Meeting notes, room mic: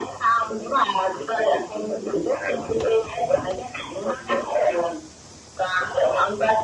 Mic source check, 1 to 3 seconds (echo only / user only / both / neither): echo only